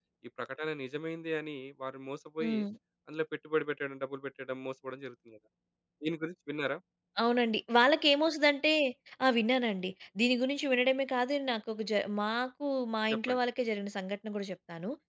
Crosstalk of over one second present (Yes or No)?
No